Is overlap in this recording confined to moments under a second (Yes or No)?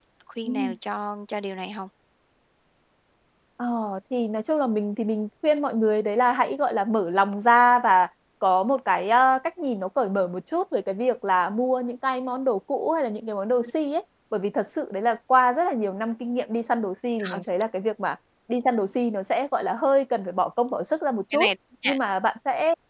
Yes